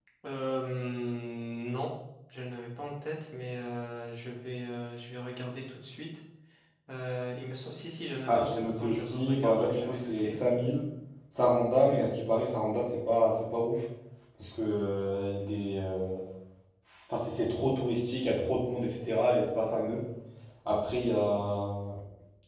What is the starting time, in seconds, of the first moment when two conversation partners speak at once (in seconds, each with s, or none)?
8.3 s